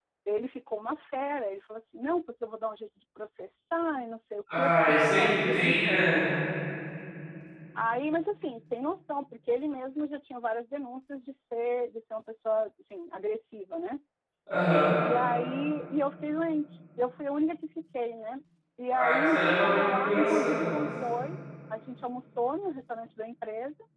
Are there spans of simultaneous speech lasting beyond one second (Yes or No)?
Yes